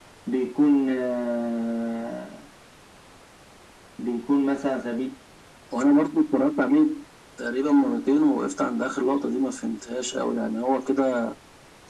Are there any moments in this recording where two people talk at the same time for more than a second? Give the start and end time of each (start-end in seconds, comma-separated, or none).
none